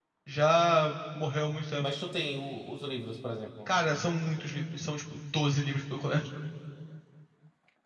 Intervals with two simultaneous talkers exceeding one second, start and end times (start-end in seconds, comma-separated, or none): none